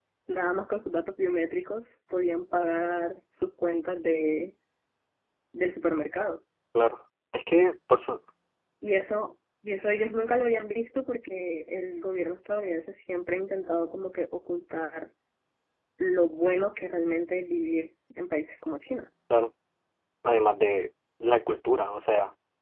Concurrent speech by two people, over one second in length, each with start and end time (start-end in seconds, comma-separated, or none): none